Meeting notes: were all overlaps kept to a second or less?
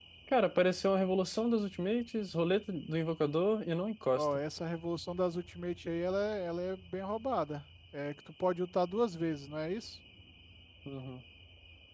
Yes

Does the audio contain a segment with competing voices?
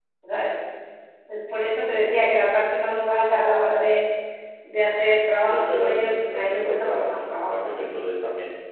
Yes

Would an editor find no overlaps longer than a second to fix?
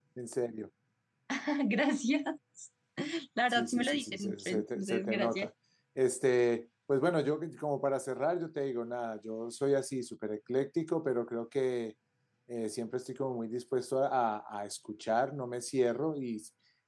No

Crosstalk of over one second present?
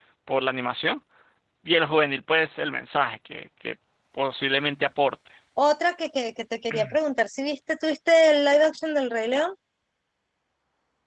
No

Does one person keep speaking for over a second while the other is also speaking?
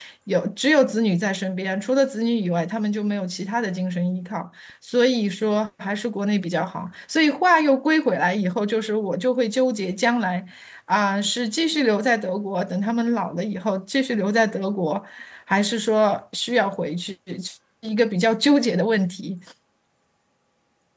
No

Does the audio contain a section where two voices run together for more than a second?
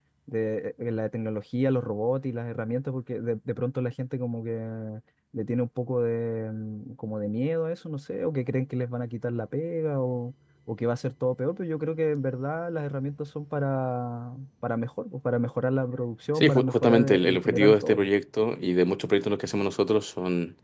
Yes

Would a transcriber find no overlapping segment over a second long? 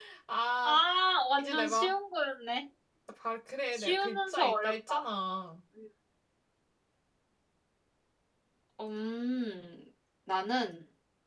No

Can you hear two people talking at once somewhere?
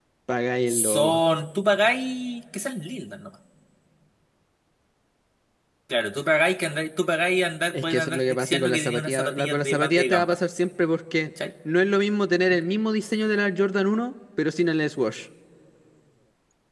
Yes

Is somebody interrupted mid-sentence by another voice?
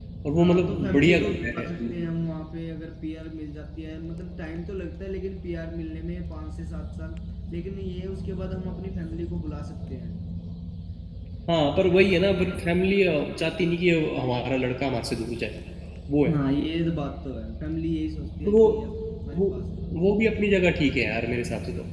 Yes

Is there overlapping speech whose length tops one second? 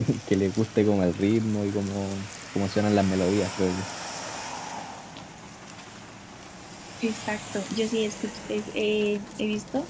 No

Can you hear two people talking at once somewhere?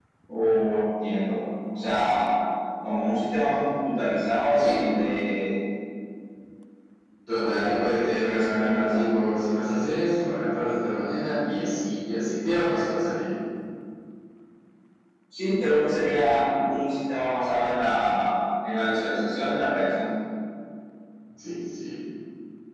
Yes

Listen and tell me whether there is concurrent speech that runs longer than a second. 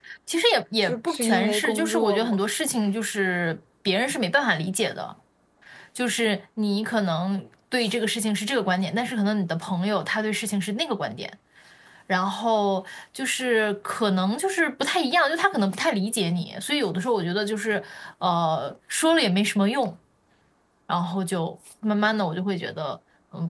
Yes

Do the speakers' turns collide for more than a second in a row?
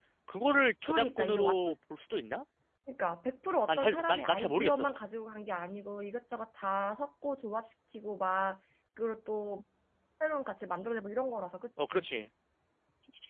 Yes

